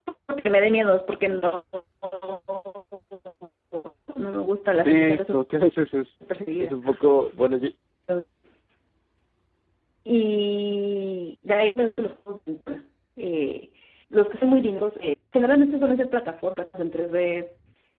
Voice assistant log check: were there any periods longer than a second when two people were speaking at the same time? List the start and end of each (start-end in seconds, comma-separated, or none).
none